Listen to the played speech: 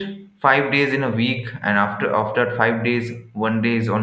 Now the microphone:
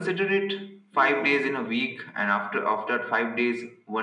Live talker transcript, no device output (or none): yeah